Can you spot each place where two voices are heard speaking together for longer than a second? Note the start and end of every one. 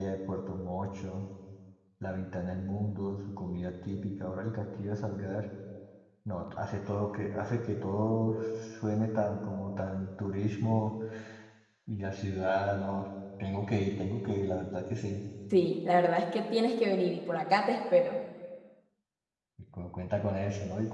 none

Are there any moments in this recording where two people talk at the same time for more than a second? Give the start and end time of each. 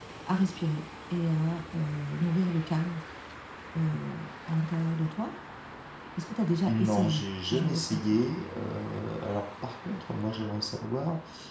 6.7-8.2

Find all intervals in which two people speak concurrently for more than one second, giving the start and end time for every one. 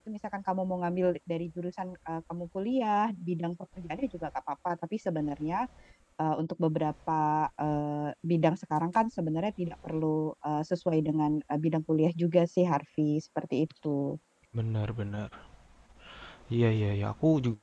none

